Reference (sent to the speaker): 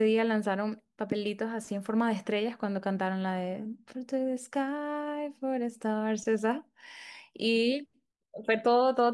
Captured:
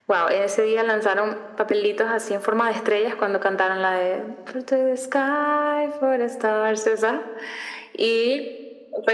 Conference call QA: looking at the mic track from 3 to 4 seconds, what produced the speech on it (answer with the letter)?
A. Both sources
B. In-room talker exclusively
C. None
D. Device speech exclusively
D